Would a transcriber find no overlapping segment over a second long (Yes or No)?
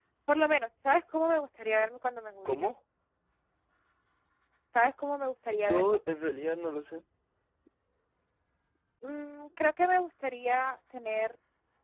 Yes